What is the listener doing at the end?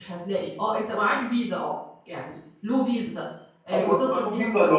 taking over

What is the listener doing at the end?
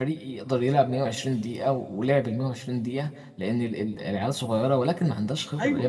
listening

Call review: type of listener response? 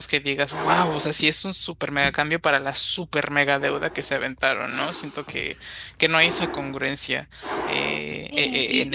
taking over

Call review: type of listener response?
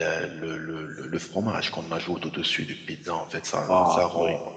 listening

